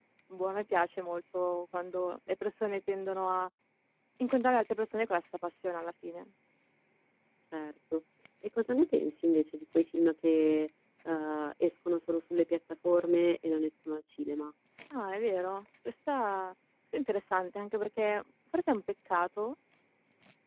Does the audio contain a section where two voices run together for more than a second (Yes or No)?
No